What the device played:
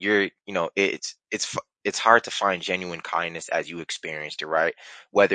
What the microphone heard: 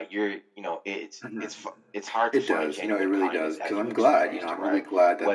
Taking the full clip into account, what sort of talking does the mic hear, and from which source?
both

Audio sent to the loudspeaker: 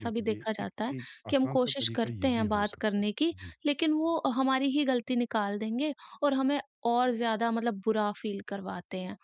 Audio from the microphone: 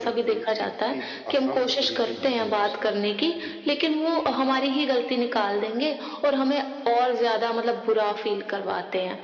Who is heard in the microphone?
echo only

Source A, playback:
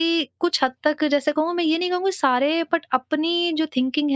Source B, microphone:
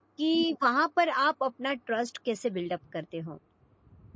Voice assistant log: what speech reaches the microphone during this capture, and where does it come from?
user only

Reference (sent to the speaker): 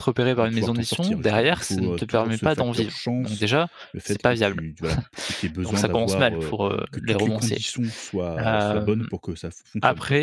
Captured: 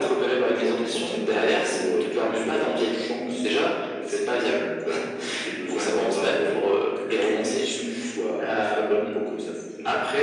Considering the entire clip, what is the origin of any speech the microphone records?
echo only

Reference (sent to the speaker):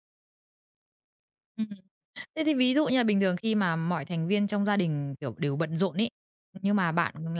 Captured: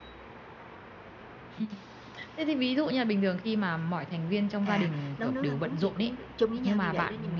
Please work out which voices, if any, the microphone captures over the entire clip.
both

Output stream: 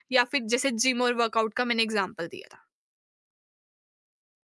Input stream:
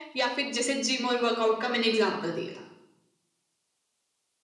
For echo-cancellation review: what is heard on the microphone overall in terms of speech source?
echo only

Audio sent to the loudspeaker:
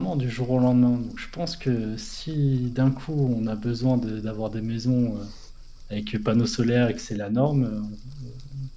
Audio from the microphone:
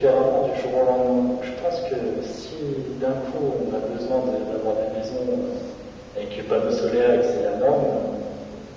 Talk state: echo only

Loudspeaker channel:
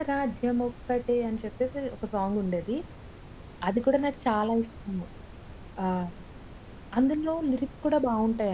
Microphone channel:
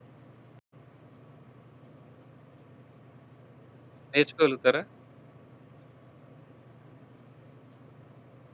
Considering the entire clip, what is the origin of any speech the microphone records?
user only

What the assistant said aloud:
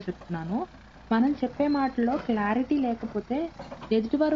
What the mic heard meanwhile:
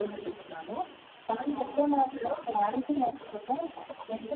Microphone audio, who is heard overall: both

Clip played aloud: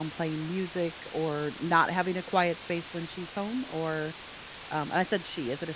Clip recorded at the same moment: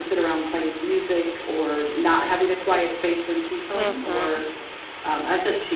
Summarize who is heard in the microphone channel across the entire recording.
both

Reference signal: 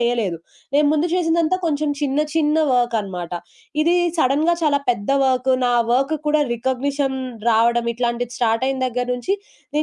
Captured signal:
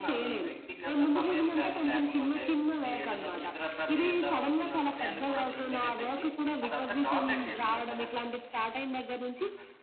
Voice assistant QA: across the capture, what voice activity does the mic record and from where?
both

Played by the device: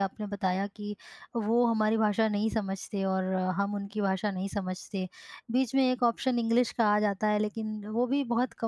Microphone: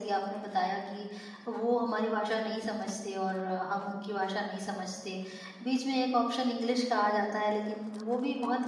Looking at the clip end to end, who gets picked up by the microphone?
echo only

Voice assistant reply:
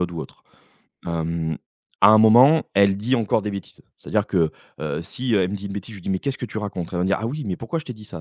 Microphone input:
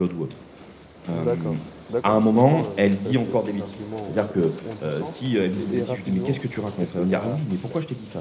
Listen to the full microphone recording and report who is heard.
both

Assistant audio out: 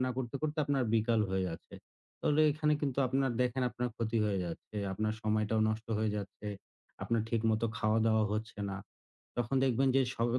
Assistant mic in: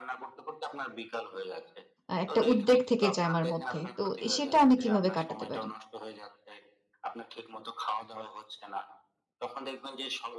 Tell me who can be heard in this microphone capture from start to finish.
both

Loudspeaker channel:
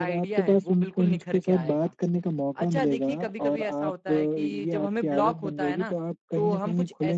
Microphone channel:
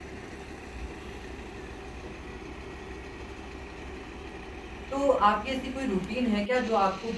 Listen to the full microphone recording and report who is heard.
user only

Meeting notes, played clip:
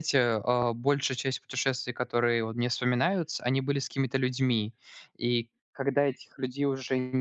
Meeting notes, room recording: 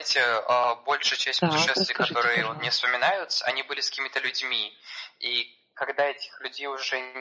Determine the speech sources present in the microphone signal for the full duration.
both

